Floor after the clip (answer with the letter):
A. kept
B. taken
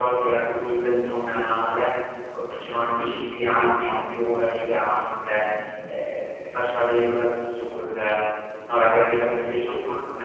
A